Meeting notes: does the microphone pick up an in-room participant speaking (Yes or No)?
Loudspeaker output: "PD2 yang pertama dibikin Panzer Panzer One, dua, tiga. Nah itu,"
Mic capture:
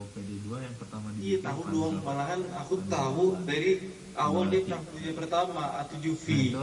Yes